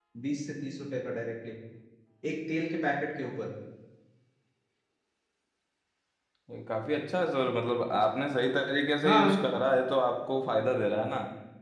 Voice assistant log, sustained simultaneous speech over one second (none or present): none